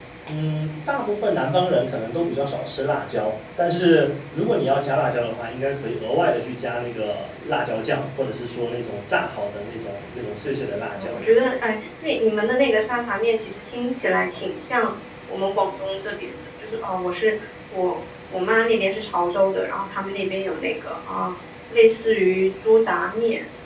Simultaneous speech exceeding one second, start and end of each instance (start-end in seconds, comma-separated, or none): none